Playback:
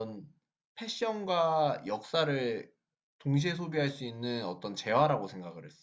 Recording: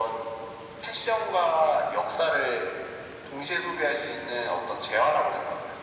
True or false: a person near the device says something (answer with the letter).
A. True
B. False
B